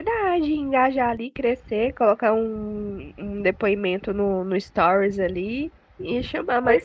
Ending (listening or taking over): listening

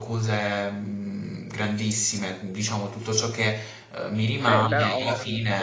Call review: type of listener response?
taking over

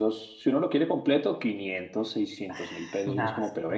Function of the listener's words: listening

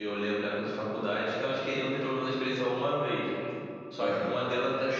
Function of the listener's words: listening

